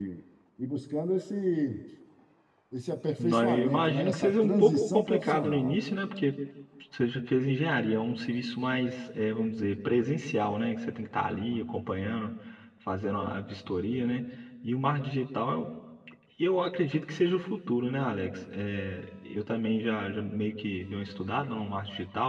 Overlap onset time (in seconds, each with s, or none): 3.2 s